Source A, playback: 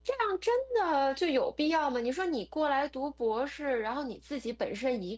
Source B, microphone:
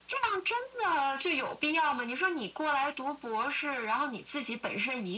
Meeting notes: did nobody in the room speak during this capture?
Yes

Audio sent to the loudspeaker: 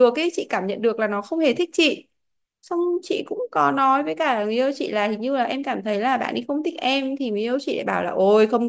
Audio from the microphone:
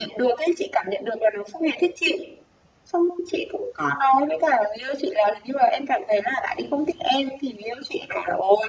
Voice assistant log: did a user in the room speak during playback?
No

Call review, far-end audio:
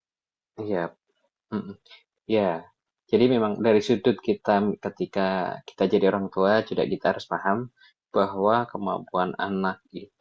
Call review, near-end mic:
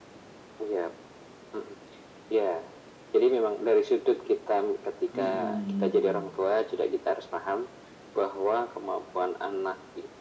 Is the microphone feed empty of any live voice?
No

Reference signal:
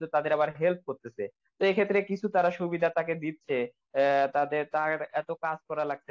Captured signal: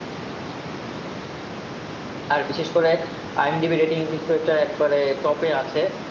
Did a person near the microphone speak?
Yes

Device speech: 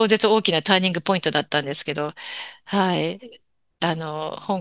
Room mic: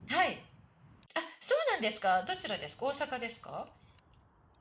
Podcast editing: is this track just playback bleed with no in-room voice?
No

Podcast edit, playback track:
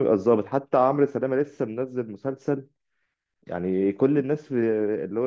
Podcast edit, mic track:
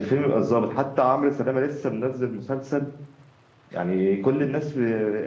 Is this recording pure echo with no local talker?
Yes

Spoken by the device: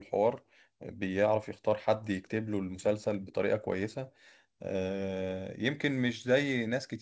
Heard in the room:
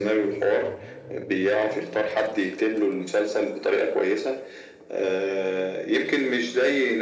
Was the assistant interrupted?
No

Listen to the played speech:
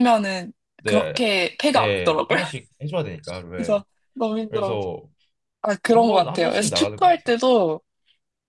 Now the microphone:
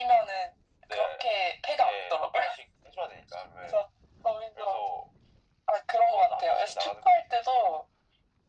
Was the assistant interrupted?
No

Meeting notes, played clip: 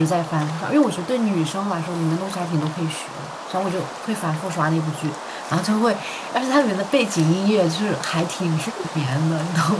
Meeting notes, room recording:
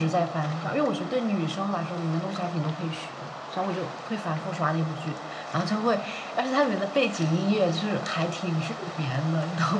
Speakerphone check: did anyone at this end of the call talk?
No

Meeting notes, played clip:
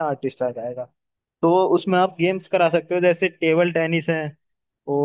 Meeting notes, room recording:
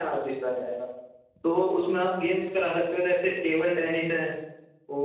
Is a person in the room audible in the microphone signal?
No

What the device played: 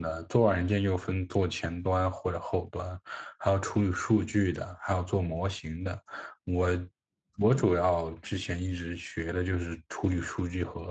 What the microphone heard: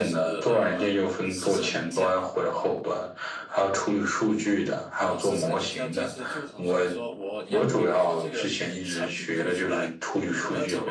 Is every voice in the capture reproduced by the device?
No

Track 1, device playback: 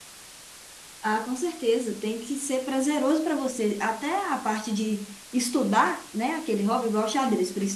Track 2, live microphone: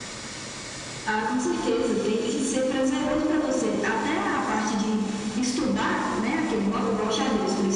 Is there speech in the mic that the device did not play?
No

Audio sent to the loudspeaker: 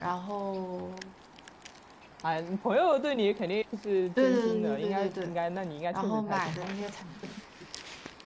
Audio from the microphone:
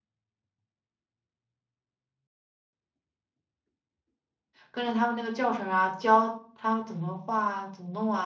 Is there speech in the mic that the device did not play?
Yes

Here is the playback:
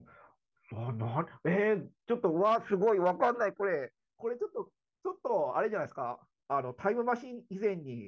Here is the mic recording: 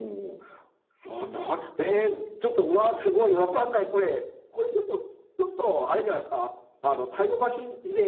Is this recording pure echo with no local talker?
Yes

